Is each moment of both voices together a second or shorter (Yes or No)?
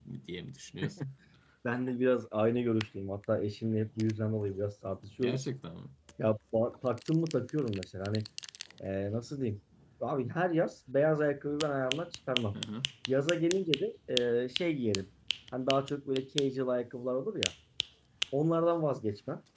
Yes